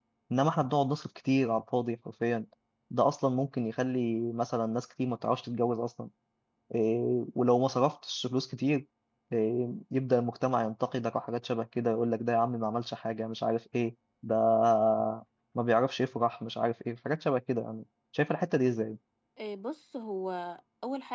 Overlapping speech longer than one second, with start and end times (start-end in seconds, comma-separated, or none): none